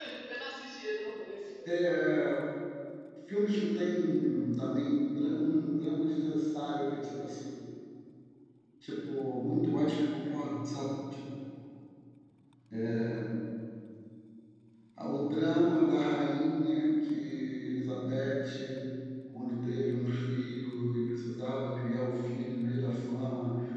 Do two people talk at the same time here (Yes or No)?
No